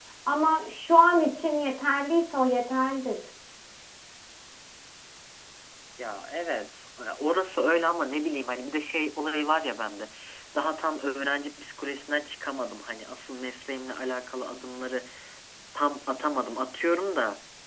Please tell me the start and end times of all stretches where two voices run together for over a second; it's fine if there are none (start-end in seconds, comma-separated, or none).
none